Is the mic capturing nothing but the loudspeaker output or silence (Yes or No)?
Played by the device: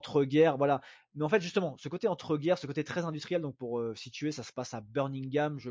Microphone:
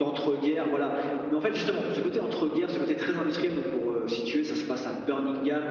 Yes